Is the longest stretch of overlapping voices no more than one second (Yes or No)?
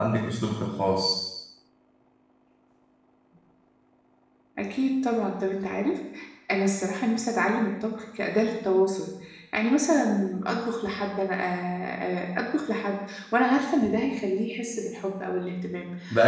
Yes